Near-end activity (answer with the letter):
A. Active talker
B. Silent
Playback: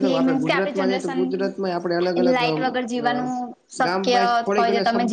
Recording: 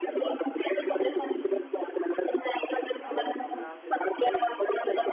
A